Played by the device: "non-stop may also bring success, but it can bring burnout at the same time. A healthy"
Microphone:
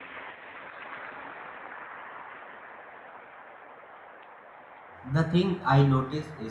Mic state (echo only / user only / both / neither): user only